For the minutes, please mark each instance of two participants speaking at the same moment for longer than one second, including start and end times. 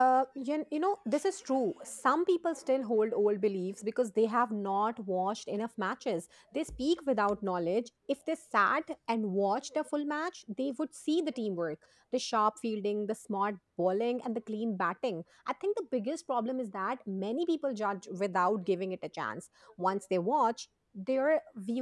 none

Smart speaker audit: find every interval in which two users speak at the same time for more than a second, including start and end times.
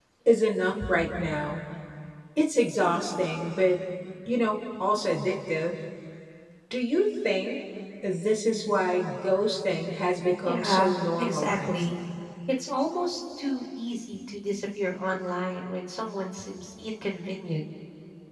10.4-11.8

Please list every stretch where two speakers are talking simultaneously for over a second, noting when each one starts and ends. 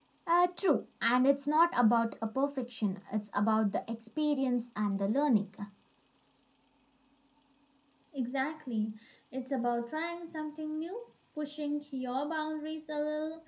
none

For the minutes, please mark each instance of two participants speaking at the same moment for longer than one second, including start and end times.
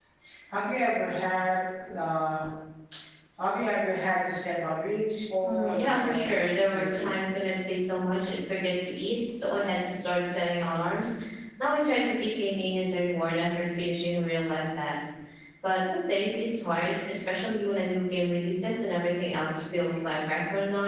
5.4-7.2

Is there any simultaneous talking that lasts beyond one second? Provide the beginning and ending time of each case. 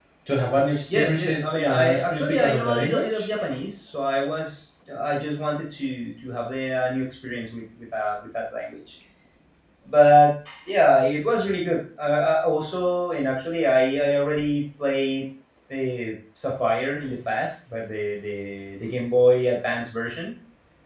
0.9-3.2

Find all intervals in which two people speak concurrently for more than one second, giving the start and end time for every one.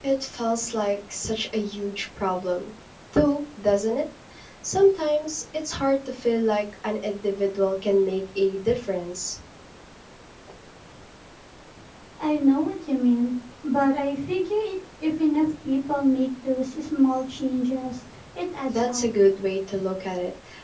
none

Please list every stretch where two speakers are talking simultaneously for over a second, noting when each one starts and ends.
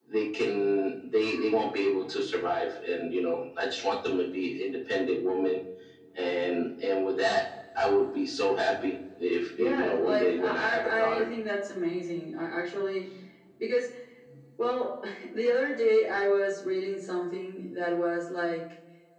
9.6-11.3

